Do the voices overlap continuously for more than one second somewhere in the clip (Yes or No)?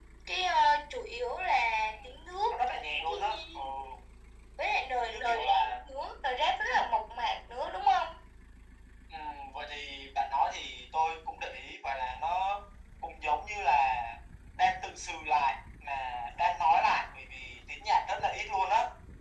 Yes